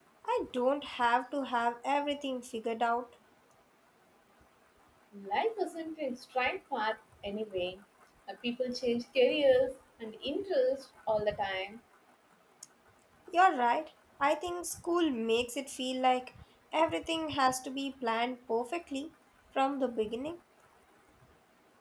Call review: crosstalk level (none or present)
none